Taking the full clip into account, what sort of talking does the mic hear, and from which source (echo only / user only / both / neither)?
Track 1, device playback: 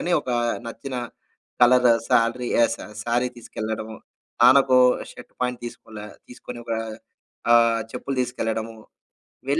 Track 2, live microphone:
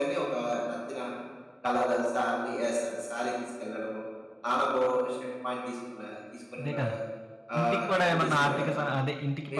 both